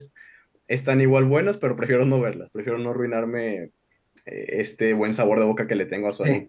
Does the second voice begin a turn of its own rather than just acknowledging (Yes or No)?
No